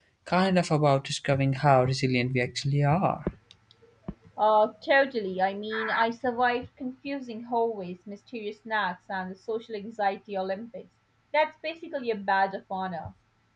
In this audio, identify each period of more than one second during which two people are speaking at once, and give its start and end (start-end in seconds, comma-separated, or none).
none